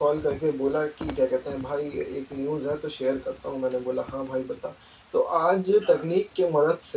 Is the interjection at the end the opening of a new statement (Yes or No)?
No